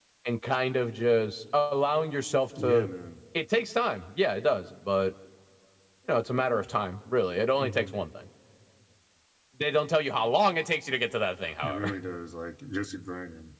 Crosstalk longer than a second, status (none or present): none